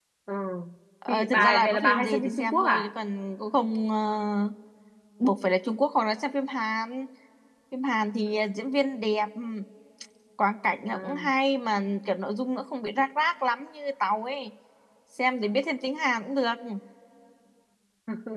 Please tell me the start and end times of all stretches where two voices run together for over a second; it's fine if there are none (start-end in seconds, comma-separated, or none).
1.1-2.9